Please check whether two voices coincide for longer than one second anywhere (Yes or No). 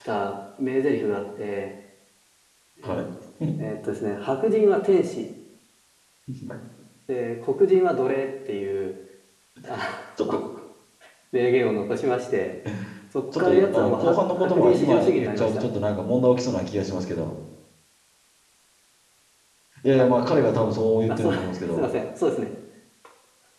Yes